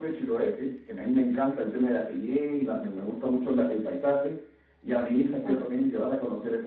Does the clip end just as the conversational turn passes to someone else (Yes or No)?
No